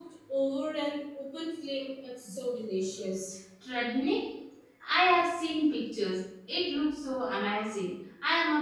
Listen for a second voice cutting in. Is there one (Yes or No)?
No